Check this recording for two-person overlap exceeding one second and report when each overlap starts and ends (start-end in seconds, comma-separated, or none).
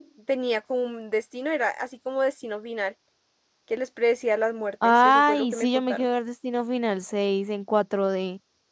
4.8-6.1